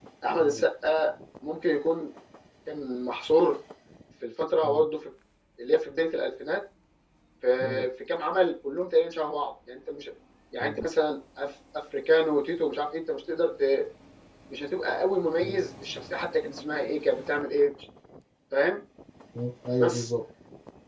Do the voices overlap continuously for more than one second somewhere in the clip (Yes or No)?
No